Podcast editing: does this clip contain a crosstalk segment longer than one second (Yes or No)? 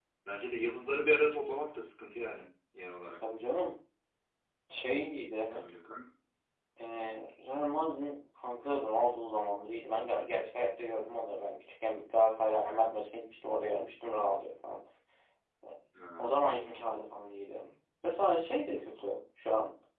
No